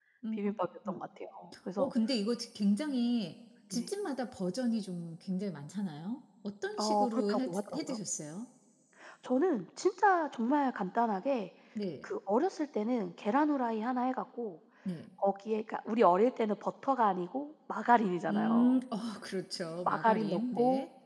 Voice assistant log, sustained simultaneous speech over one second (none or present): present